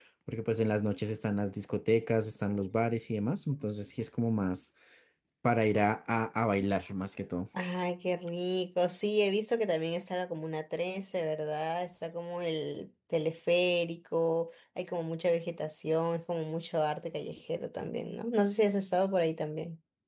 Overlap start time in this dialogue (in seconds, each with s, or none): none